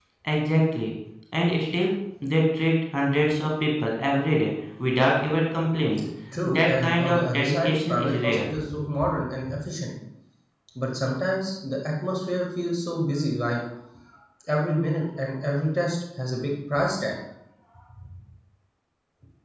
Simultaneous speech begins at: 6.3 s

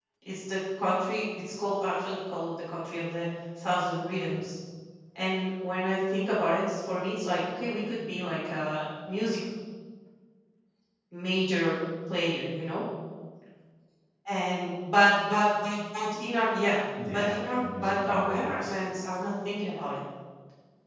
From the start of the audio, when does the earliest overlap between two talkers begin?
17.0 s

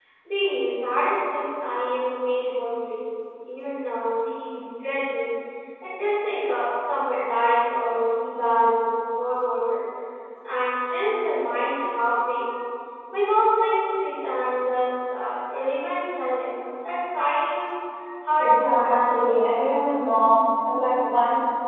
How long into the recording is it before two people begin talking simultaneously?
18.4 s

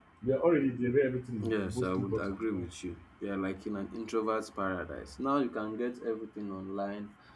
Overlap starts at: 1.4 s

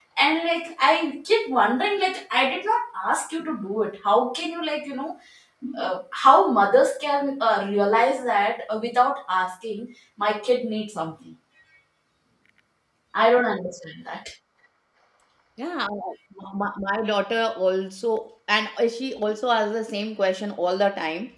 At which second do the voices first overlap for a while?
none

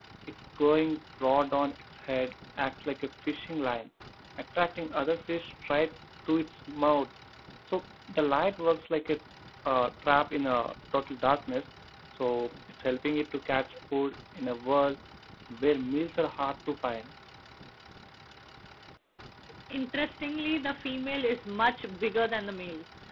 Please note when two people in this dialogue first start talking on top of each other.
none

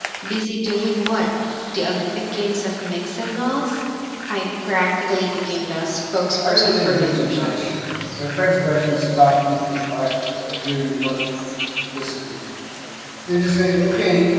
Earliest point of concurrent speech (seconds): 6.4 s

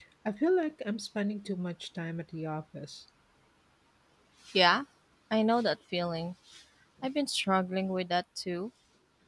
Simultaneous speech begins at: none

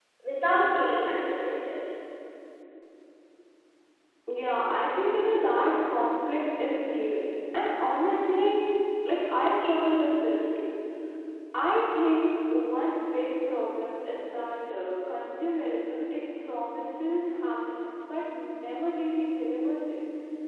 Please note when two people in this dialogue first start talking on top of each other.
none

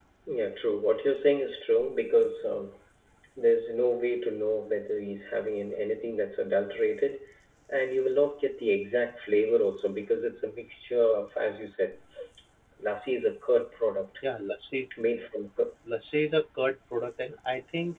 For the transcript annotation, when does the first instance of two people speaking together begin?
none

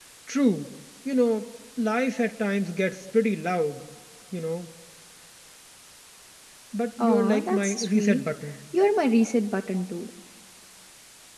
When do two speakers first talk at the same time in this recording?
7.0 s

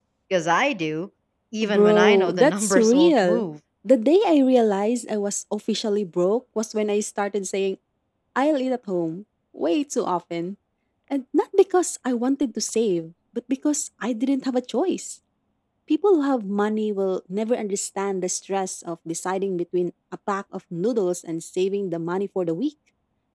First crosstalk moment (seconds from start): 1.6 s

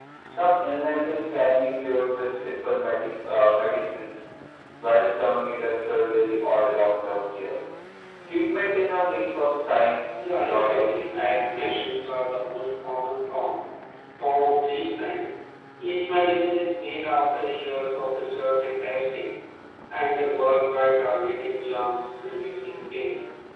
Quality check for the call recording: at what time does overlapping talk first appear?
10.2 s

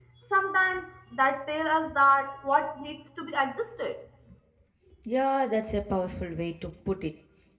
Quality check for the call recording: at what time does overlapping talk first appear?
none

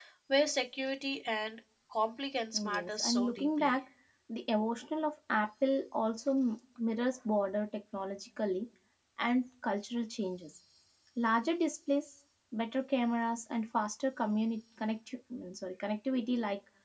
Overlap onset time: 2.5 s

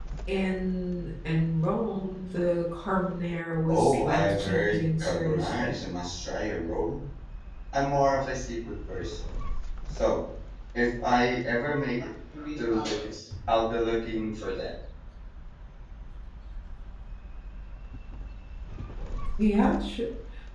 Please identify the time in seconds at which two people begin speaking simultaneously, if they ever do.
3.7 s

